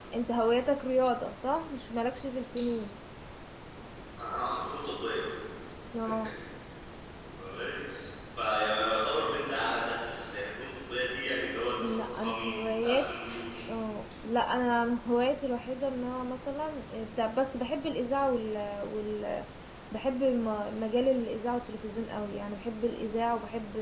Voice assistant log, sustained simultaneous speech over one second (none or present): present